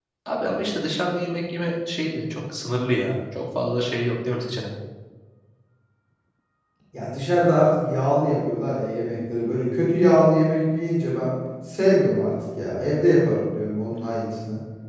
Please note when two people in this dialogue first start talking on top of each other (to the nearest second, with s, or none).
none